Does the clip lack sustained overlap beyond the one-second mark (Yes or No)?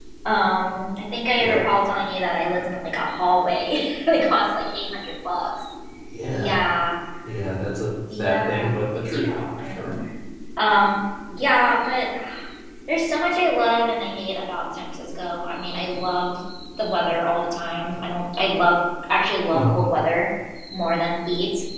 No